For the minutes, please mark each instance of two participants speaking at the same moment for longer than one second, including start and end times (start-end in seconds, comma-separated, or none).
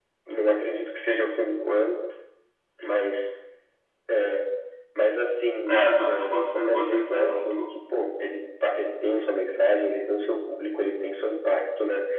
5.7-7.6